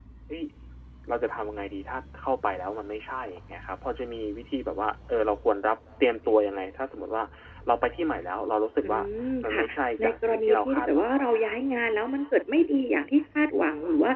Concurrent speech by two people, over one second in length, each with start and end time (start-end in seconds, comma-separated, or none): 10.0-11.5